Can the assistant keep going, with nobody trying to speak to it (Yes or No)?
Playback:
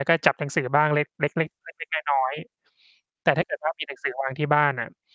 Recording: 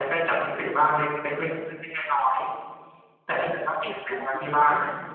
No